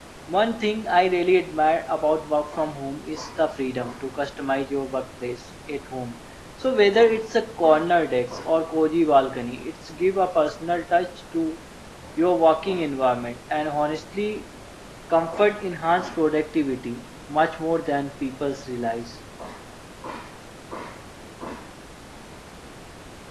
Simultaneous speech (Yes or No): No